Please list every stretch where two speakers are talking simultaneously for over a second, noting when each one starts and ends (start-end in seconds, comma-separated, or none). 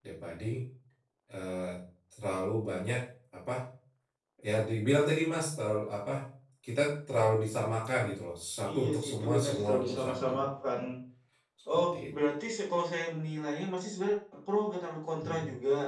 8.7-10.3